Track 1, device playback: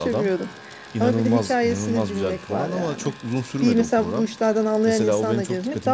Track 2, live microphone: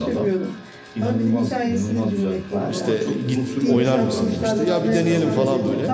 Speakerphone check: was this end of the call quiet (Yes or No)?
No